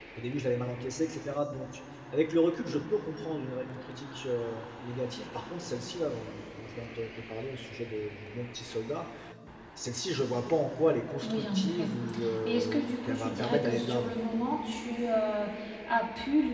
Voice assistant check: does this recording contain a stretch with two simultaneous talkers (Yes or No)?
Yes